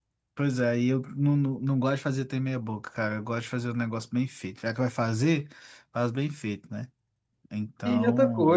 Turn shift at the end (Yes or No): Yes